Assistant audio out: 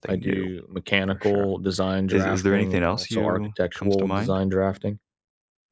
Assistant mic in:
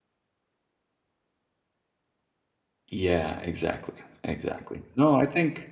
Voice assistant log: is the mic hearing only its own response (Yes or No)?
No